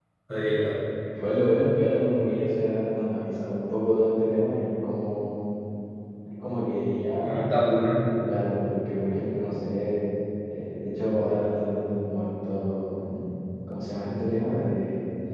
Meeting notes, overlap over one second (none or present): none